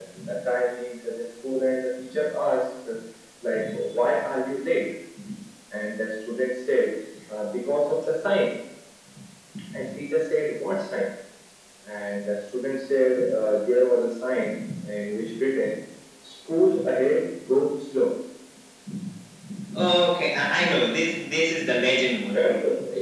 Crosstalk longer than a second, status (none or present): none